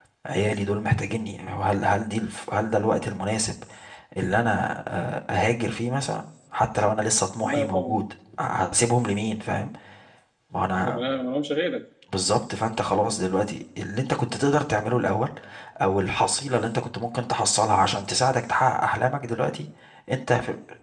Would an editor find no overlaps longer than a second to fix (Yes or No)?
Yes